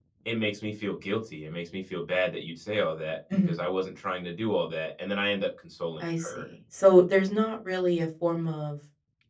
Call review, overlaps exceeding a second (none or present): none